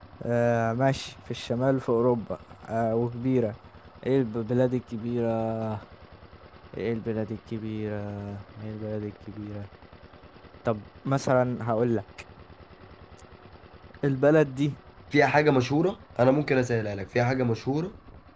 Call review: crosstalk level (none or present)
none